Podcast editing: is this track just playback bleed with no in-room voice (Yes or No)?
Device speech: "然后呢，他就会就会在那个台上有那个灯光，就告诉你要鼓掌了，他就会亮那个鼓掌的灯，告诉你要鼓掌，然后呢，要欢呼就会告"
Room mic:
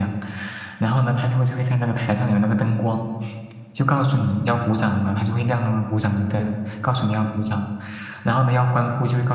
Yes